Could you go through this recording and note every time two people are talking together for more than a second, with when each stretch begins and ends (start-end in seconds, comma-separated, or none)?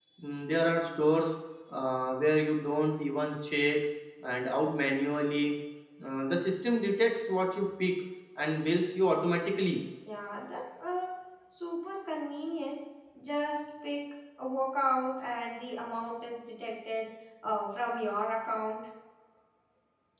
none